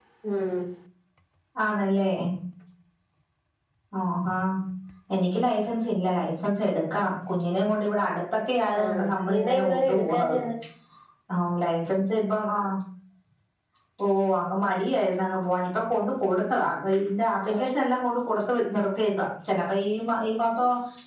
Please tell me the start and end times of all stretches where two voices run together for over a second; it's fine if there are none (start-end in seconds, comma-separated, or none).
8.8-10.3